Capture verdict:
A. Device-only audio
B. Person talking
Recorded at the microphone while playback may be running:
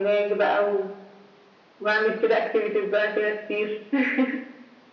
A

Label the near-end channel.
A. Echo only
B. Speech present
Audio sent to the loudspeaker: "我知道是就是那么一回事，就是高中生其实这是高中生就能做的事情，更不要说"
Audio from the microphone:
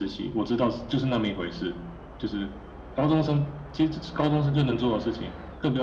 A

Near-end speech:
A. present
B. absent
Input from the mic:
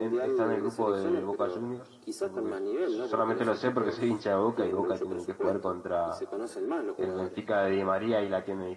A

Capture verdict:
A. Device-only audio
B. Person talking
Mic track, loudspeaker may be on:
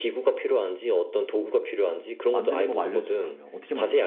B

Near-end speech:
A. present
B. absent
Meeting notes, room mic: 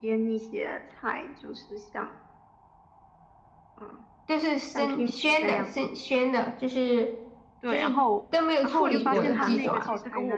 A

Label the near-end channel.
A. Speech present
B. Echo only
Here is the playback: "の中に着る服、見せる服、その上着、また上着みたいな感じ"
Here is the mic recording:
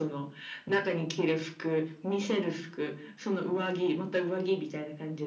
B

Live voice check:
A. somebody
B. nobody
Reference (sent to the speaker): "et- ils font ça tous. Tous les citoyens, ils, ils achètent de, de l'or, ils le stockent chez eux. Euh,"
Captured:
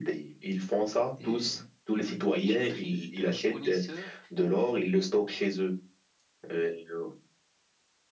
A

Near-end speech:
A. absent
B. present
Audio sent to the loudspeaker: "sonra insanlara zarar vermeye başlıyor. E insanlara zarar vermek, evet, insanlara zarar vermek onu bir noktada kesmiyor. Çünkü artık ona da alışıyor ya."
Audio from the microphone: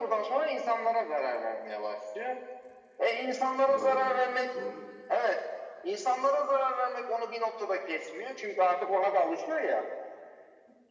B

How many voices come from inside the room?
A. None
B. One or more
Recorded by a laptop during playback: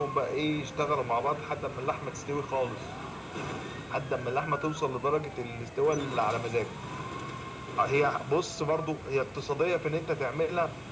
A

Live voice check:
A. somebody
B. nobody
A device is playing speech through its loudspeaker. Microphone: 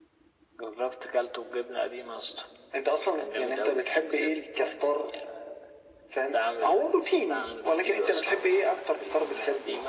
B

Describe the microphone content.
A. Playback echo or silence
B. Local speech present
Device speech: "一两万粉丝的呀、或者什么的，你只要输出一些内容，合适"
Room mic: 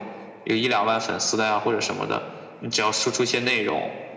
A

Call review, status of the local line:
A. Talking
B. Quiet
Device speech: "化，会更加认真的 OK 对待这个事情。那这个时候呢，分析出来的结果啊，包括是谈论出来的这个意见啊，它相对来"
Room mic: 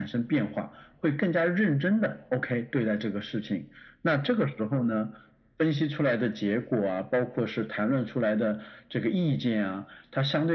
B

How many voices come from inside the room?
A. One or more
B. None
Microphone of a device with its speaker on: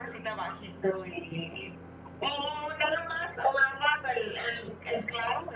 B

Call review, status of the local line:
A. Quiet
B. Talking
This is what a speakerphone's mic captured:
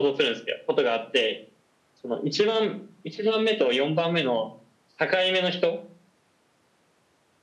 A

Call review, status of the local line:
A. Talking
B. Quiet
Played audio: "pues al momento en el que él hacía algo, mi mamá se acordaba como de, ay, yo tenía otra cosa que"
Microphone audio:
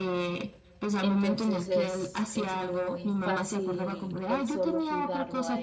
A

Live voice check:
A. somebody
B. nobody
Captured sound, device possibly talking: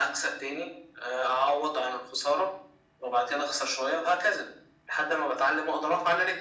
B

